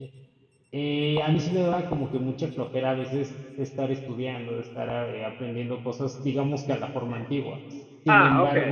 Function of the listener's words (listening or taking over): listening